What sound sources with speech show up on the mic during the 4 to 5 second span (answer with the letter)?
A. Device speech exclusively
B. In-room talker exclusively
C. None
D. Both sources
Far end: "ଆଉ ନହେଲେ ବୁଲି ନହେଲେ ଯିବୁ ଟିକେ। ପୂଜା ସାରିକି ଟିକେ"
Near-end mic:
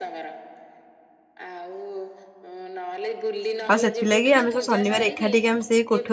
D